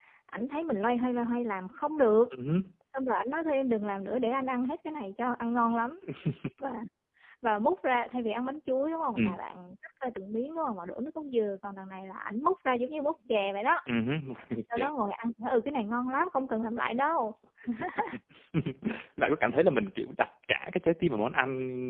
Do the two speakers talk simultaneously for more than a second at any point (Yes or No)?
No